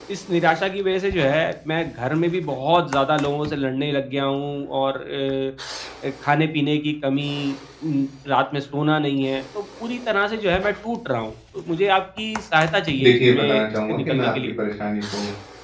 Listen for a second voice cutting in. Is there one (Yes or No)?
Yes